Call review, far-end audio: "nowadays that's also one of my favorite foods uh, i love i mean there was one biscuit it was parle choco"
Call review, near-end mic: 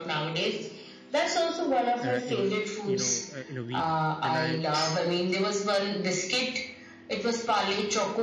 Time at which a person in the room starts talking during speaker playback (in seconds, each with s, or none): 2.0 s